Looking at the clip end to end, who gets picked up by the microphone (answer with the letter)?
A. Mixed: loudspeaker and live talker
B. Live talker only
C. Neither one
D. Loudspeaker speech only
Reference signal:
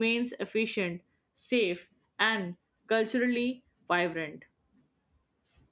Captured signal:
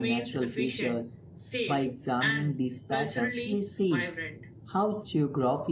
A